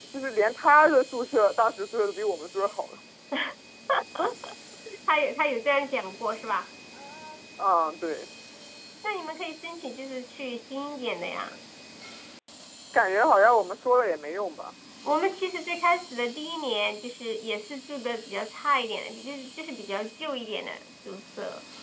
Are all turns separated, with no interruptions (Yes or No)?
Yes